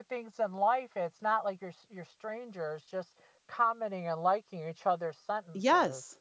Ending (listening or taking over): taking over